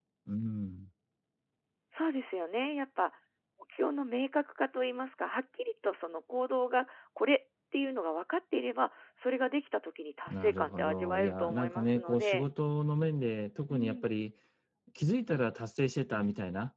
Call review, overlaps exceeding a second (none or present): present